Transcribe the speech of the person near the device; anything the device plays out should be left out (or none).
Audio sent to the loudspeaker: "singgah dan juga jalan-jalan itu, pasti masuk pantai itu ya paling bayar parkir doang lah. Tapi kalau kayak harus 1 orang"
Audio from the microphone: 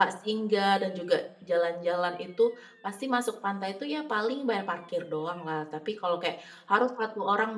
none